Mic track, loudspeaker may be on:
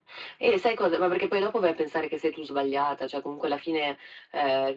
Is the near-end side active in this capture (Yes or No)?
No